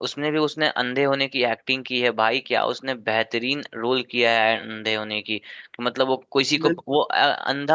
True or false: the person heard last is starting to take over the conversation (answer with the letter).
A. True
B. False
B